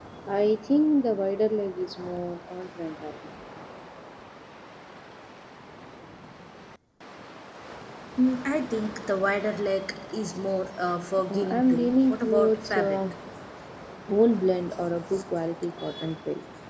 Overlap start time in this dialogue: 11.3 s

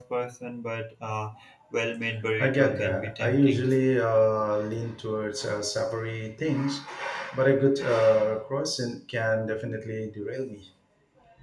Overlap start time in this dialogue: 2.4 s

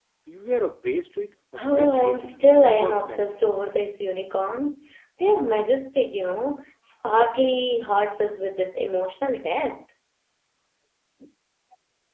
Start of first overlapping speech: 1.6 s

